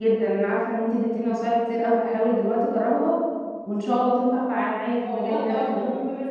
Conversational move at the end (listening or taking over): taking over